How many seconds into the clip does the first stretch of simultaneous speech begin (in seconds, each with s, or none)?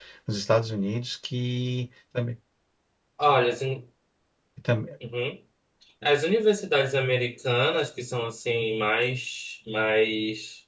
none